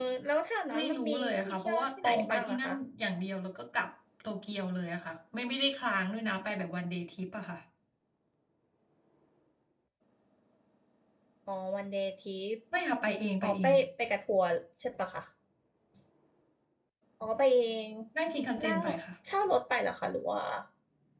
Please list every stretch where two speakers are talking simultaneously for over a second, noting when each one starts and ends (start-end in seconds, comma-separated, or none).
0.8-2.7